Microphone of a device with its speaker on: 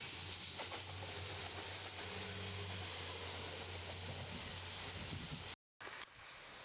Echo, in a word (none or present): none